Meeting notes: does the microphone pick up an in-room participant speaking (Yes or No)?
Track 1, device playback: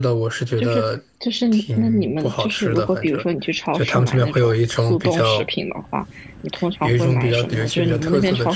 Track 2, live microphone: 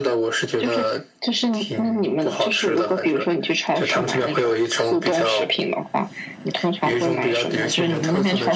No